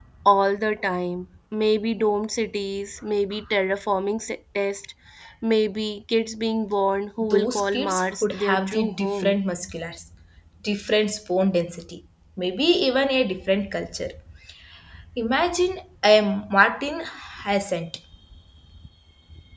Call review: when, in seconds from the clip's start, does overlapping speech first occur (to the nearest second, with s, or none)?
7 s